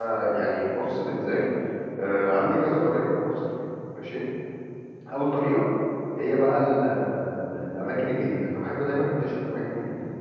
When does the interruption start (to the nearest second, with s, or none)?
none